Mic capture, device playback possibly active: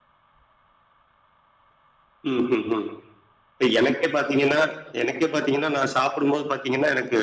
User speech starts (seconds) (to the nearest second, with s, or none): none